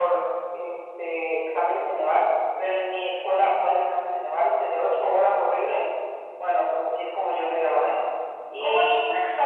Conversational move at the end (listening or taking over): taking over